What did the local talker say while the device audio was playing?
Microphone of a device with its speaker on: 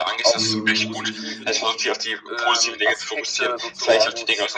Mhm.

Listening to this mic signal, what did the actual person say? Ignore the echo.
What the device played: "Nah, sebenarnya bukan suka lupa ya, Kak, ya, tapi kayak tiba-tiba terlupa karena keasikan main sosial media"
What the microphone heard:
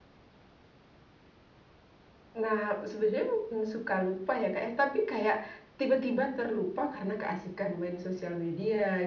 none

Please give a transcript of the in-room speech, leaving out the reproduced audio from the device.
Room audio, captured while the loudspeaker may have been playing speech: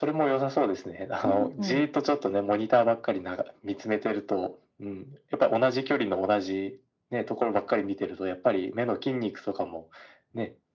うんうん。

